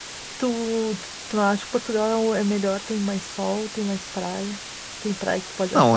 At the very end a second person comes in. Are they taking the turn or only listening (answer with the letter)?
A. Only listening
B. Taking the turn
B